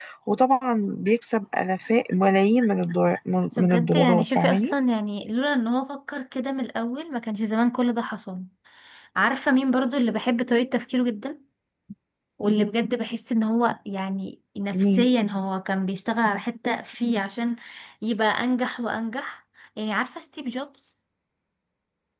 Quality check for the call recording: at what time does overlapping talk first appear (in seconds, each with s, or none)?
3.5 s